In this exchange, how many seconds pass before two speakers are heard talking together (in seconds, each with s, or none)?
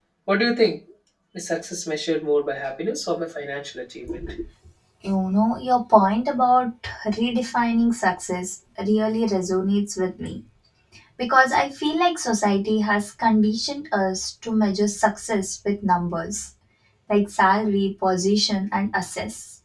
none